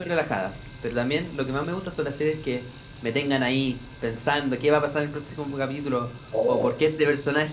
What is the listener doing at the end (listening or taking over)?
listening